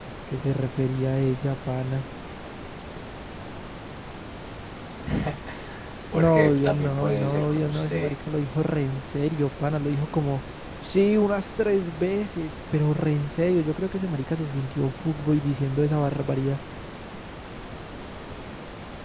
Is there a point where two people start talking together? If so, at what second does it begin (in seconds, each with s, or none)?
6.1 s